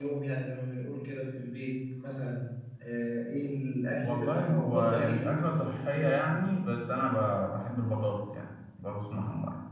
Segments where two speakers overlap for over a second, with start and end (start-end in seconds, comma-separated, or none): 4.0-6.5